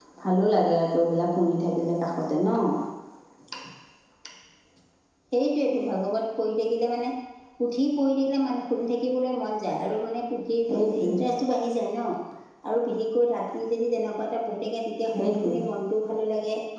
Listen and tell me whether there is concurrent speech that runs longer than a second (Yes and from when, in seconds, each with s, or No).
No